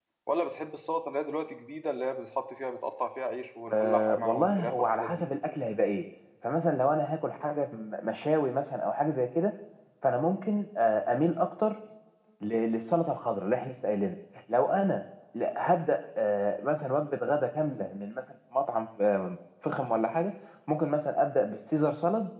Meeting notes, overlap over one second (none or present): present